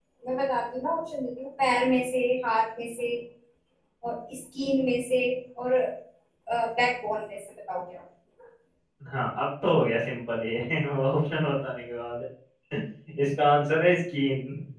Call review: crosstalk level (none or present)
none